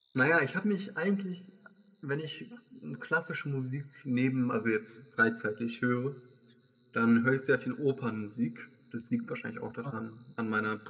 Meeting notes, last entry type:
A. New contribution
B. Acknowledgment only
B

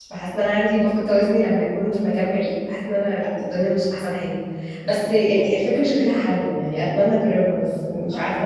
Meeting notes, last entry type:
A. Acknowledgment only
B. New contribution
B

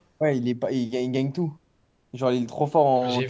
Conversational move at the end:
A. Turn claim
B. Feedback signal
A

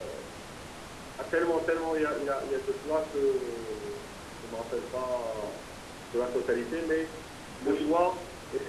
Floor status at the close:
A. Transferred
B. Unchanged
B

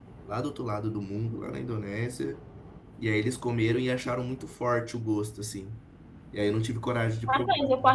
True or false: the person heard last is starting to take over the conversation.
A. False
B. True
B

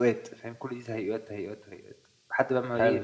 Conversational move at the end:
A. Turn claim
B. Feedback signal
B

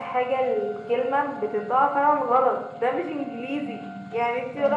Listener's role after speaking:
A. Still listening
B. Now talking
A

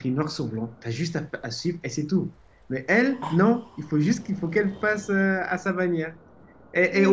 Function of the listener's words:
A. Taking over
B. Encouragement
B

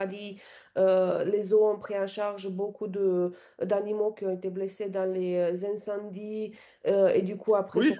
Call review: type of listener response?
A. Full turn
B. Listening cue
B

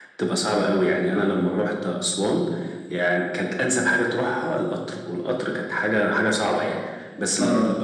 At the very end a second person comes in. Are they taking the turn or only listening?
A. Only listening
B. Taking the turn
A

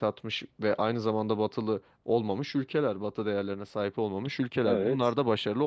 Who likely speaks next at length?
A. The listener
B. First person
B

